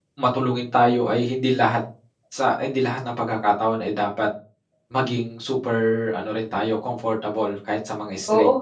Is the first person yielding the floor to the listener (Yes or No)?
Yes